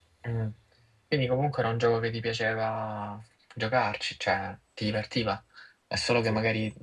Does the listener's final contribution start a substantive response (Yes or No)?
No